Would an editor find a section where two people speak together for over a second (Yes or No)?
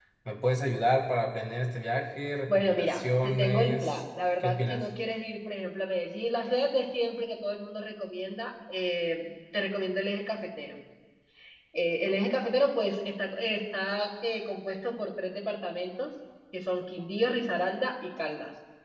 Yes